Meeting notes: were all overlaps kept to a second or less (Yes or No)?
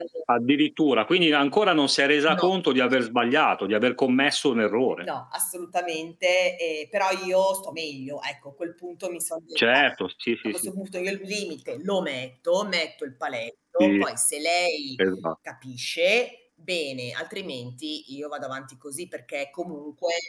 Yes